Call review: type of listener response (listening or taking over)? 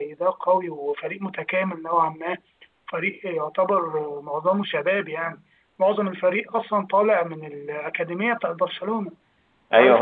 taking over